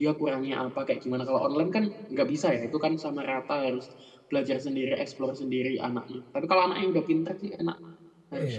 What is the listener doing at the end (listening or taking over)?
taking over